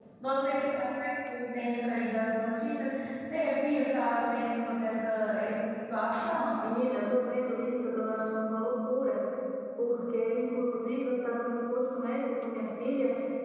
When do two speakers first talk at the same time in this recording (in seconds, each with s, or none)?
none